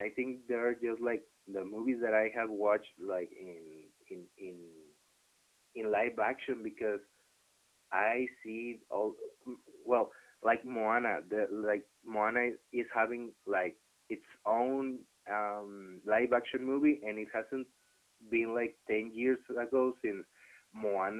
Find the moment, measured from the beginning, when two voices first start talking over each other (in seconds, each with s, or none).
none